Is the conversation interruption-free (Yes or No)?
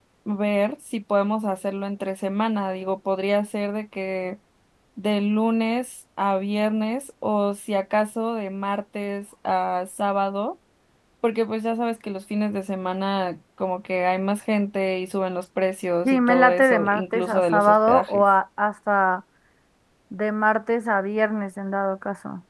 No